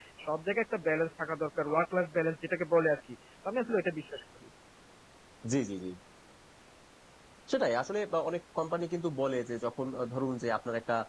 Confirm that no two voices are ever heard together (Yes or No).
Yes